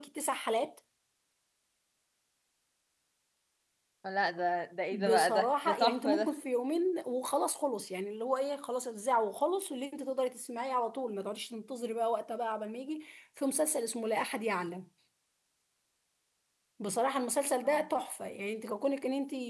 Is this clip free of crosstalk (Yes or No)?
No